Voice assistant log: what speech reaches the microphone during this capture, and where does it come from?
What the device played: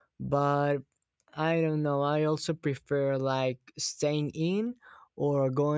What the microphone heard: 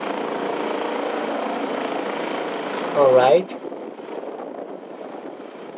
user only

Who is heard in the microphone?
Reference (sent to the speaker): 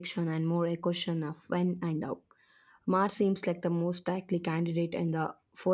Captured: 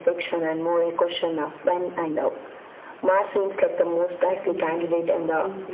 both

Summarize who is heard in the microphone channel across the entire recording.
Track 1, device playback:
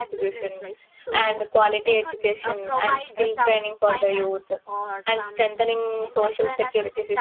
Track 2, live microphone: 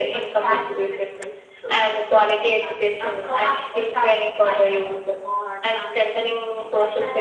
echo only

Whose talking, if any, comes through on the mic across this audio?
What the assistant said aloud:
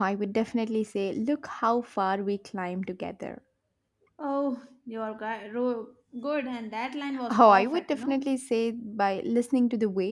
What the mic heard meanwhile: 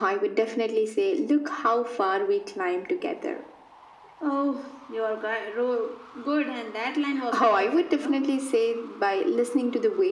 echo only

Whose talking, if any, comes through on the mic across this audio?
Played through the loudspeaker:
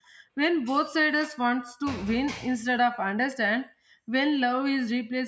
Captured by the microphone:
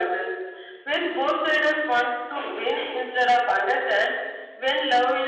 echo only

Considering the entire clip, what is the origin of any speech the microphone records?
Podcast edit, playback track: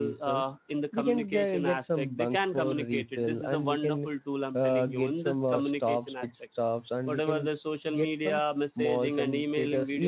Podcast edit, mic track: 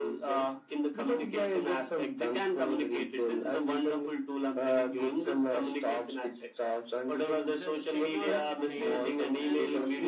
both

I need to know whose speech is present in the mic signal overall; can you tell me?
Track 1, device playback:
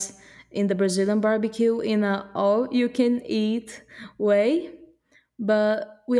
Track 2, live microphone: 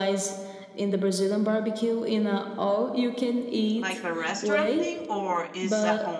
both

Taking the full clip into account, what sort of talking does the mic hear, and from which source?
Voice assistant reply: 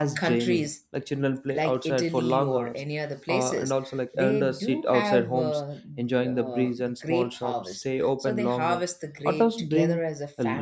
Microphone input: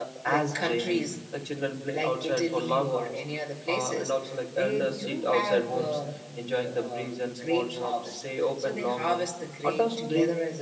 echo only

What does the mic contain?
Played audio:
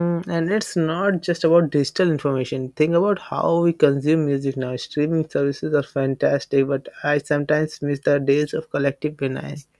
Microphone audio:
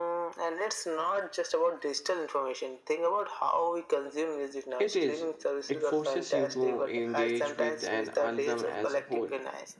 both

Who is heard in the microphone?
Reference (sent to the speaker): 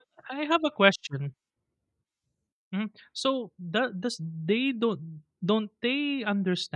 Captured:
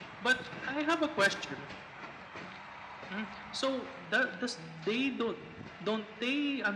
echo only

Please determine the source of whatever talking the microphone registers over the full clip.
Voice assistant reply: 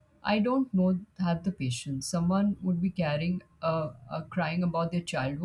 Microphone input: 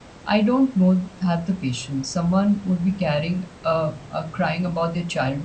echo only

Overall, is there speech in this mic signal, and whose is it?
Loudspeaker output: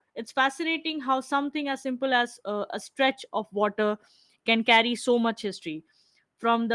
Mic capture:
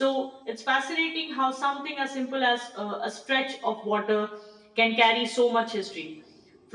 echo only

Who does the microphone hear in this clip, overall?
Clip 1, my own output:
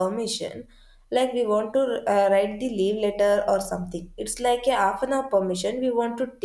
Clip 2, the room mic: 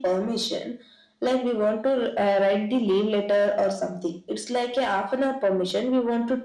echo only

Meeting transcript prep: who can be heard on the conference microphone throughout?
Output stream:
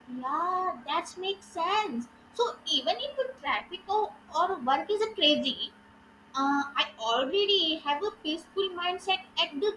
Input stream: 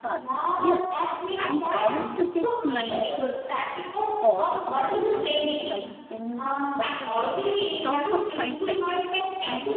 both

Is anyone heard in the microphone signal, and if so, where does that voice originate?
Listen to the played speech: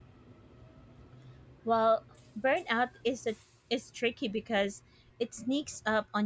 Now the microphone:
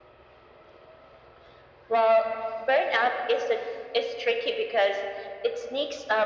echo only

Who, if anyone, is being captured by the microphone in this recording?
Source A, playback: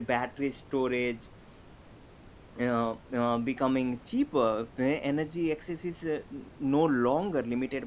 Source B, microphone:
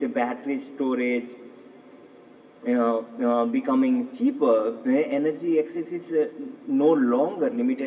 echo only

